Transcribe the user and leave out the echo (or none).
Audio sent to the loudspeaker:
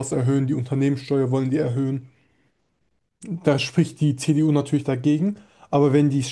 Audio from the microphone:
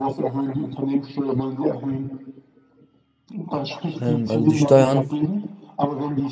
Ähm, also die Steuern,